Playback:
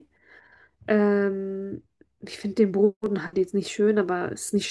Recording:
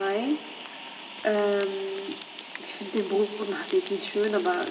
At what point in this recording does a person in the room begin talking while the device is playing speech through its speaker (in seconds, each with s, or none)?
none